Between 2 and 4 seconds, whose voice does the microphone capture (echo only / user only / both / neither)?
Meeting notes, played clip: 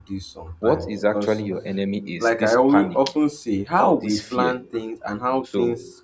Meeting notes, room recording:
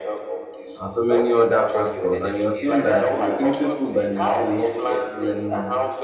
both